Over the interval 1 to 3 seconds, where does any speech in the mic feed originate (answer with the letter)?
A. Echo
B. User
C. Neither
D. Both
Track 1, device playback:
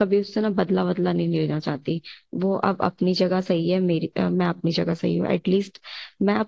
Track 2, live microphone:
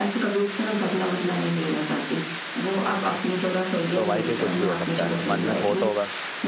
A